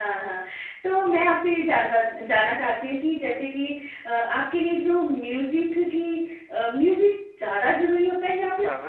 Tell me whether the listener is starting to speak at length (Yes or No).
No